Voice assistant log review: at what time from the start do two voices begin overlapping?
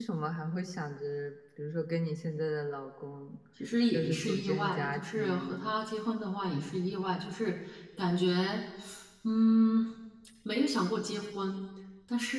3.9 s

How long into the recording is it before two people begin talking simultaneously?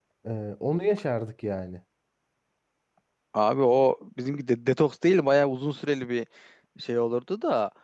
none

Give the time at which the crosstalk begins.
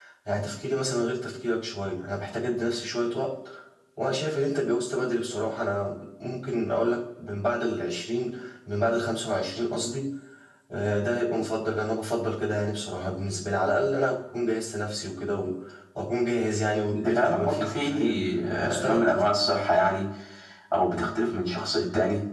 16.9 s

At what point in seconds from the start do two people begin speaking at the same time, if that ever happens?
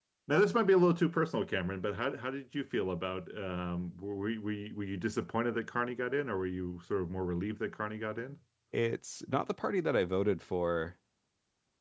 none

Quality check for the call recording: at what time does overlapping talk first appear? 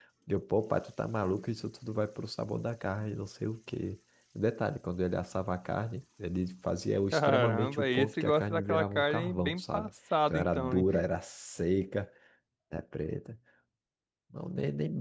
7.1 s

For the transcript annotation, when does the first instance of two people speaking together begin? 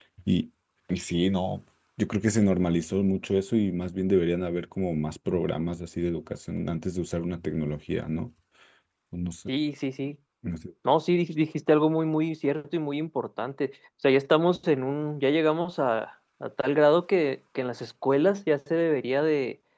none

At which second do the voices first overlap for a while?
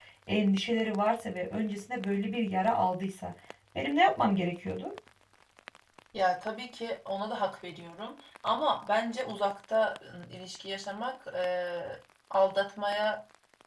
none

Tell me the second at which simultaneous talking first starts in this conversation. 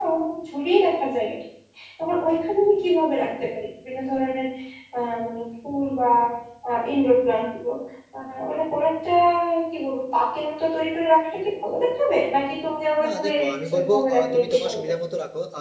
13.0 s

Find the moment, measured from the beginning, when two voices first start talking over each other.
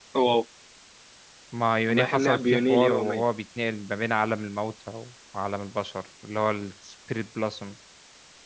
1.9 s

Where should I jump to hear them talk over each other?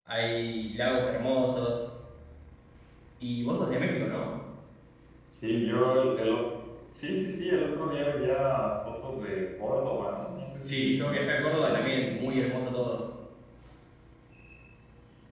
10.7 s

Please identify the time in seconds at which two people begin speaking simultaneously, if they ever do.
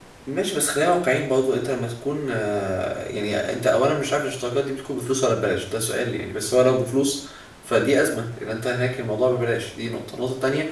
none

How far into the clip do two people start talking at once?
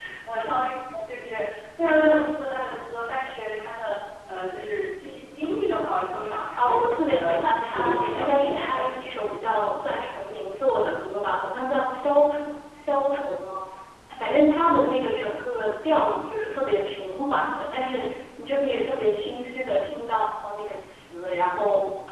6.6 s

